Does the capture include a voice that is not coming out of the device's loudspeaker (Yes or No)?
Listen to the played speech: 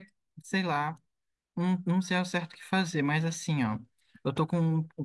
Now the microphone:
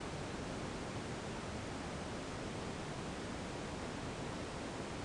No